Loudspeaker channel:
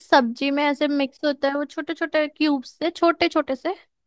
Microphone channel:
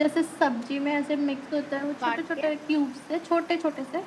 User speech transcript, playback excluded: काट के

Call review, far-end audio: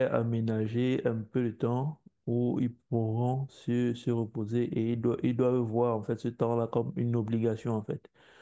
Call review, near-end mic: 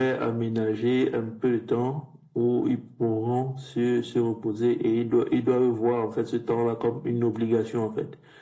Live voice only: none

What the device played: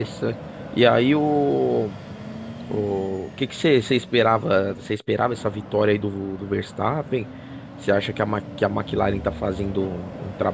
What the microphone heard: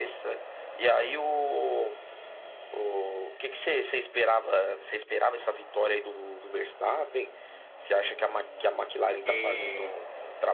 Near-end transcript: E

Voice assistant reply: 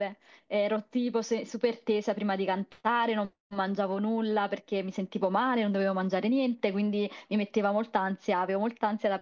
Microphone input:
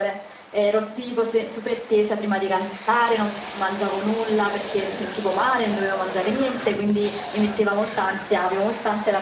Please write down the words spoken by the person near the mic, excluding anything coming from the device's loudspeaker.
none

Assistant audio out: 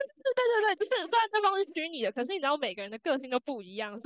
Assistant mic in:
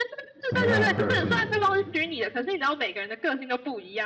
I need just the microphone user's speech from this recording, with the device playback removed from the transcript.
什么样的个性哦？

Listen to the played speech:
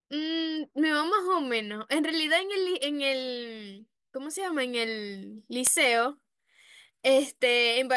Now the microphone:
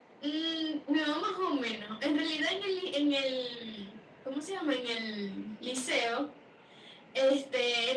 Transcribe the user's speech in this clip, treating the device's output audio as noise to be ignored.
none

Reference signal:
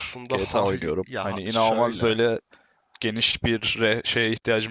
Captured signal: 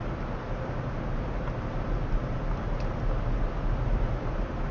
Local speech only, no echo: none

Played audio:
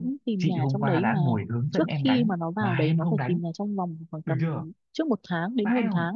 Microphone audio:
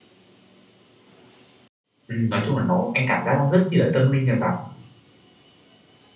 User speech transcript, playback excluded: Ừ, nói chung là nó anh cảm giác nó rất chi là tâm linh nha vào

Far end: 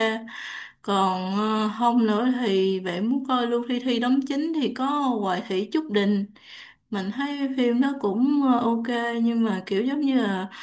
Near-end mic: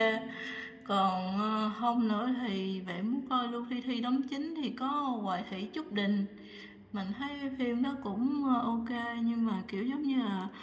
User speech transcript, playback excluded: none

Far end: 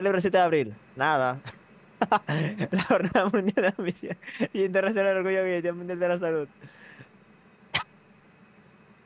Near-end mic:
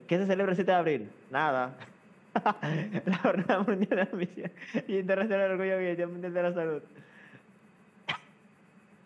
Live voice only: none

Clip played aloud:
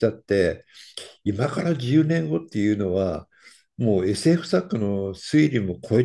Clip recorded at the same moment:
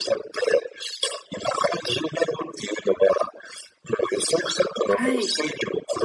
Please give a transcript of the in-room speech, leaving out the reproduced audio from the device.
はい。

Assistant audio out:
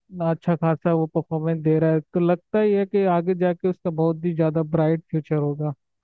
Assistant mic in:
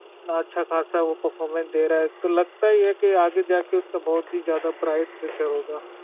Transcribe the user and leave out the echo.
none

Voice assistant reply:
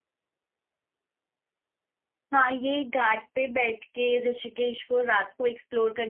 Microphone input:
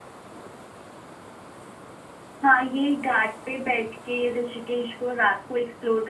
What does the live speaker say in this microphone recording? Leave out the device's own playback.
none

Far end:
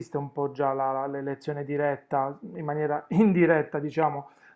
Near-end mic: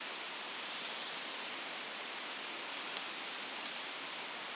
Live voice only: none

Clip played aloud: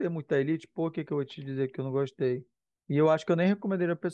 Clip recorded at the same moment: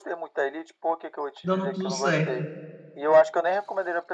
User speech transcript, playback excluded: dando tudo certo.

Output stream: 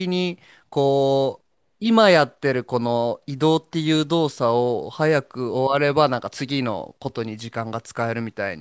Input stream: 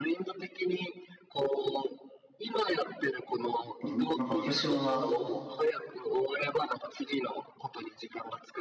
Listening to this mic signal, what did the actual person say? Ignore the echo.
でもなんか私は、

